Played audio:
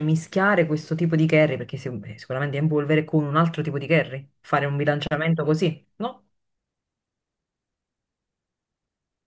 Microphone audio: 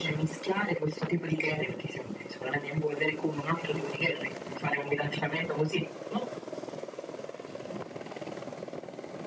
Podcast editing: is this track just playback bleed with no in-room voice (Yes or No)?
Yes